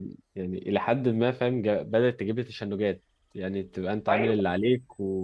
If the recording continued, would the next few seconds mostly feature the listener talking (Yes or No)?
No